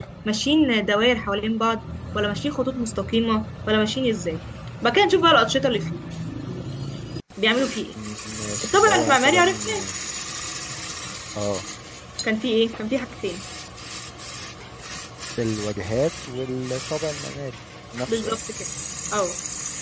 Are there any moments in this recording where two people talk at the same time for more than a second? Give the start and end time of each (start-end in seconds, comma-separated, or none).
8.6-9.8